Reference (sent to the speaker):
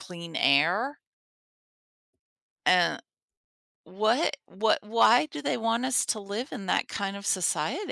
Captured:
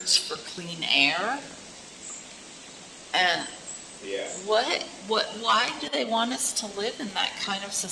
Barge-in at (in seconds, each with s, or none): 4.0 s